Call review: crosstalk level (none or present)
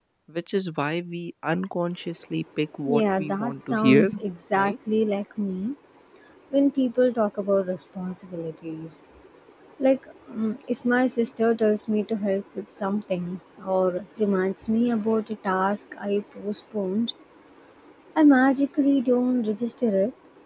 present